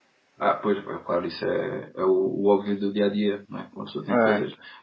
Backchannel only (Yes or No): Yes